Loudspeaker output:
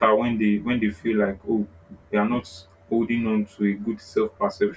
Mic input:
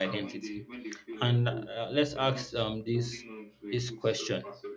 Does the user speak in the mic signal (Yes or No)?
Yes